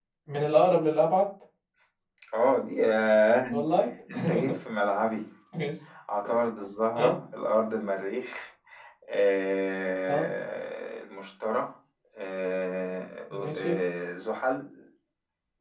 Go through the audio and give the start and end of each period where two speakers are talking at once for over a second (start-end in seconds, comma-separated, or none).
none